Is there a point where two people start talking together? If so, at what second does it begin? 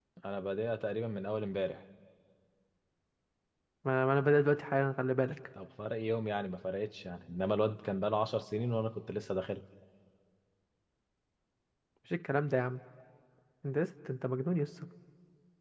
none

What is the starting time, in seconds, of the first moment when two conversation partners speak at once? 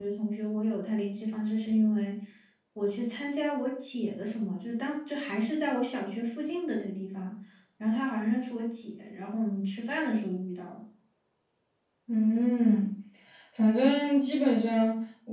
none

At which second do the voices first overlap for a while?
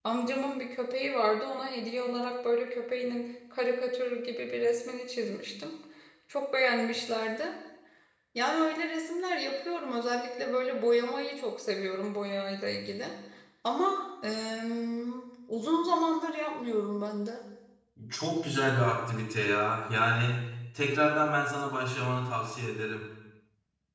none

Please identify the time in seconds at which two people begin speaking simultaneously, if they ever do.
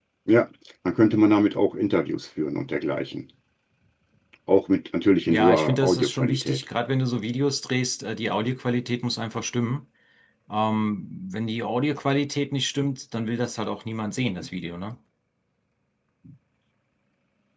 5.3 s

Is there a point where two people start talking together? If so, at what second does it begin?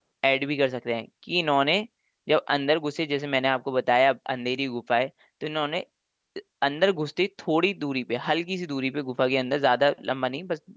none

